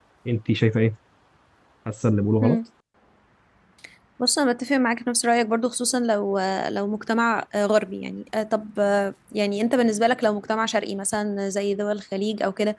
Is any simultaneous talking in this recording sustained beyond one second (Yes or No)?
No